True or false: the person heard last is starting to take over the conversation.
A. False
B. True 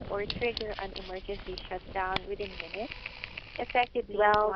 B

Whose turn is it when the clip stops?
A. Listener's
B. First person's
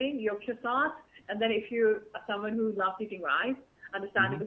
B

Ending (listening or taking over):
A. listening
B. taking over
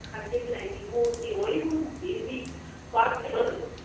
A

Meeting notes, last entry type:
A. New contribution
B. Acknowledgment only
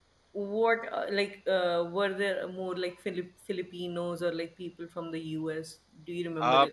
A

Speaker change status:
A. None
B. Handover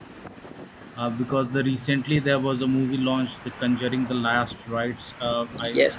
B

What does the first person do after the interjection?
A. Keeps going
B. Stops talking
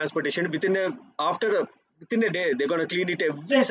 B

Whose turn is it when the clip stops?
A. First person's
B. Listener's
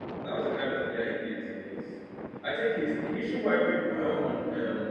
A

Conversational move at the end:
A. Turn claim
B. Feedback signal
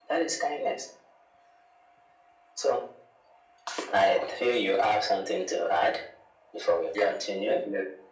A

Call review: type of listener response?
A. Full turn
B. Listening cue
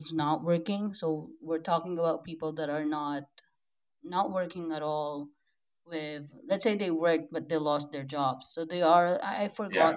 B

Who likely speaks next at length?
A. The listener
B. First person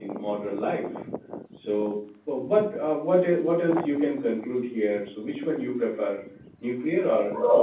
A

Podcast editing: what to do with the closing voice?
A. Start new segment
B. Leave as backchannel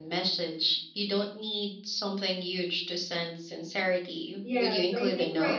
A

